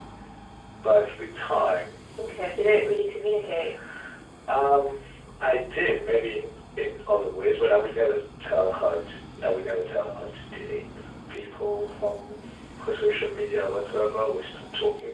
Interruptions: none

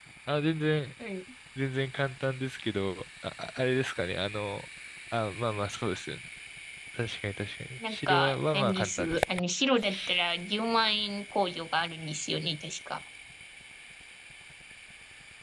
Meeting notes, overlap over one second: present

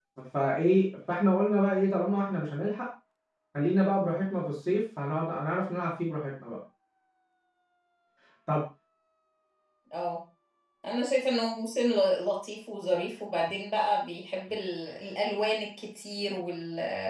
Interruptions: none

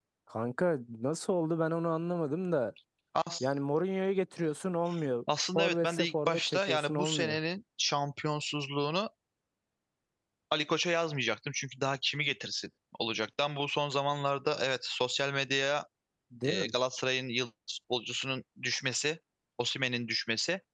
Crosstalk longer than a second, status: present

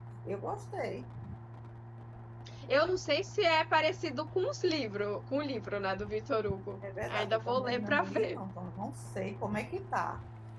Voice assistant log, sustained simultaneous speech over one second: present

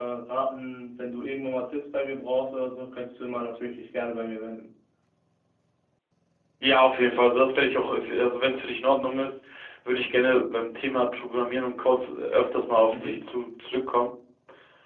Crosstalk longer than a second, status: none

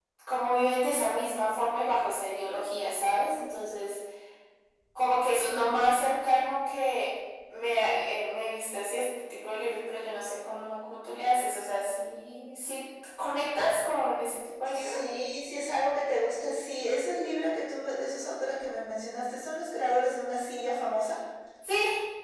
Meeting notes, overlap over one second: none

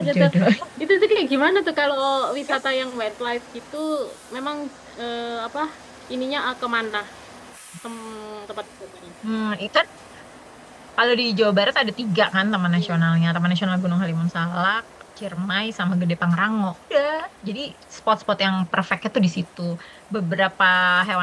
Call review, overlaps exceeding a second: none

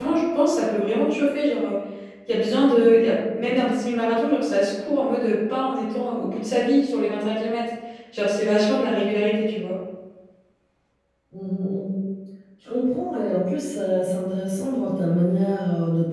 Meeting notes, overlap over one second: none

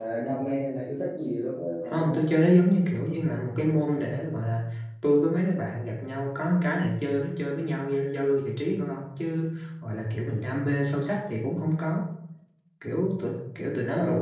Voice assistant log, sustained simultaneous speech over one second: none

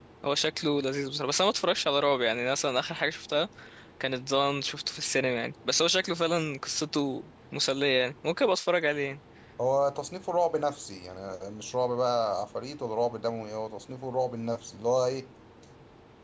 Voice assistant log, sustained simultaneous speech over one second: none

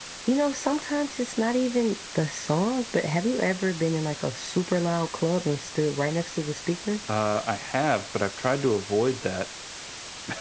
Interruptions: none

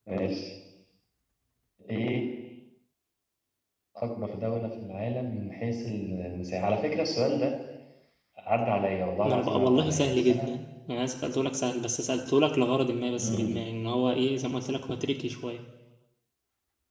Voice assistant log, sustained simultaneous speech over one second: present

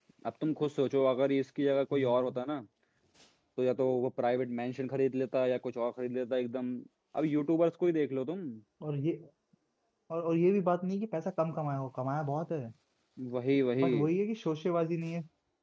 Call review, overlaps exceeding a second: none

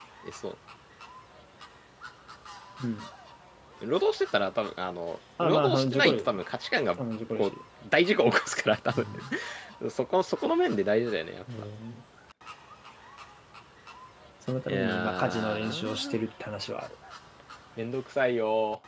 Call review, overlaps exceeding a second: present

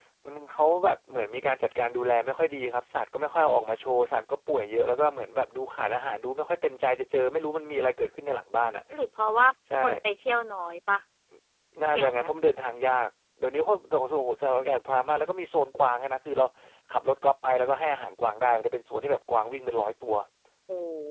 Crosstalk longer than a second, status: none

